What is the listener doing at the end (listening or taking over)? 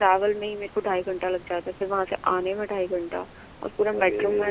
listening